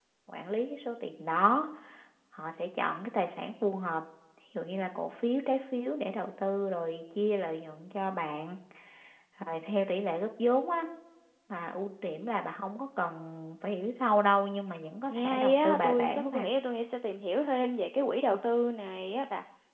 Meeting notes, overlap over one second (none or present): present